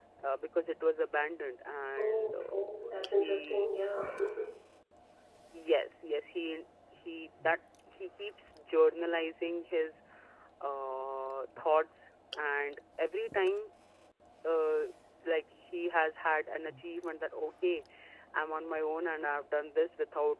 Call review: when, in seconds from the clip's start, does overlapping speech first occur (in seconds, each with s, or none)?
2.0 s